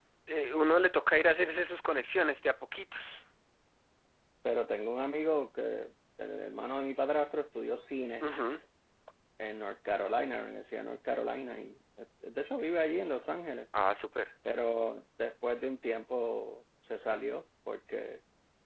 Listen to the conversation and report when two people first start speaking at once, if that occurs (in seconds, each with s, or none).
none